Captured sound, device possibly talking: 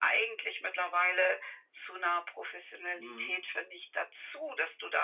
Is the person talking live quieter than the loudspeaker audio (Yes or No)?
Yes